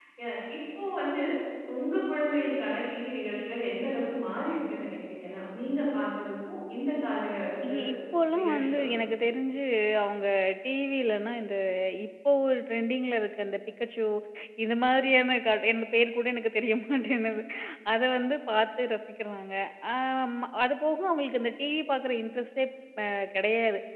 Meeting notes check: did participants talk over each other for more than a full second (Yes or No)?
No